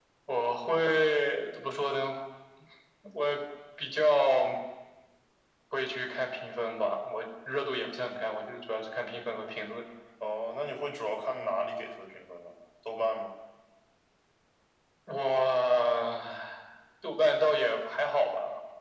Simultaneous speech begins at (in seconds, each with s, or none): none